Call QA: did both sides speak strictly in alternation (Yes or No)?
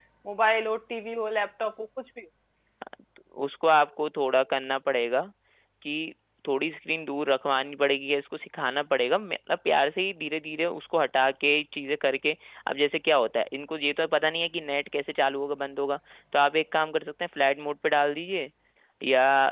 Yes